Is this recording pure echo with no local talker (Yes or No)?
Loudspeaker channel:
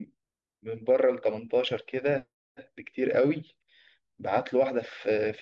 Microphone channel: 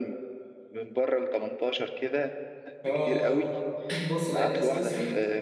No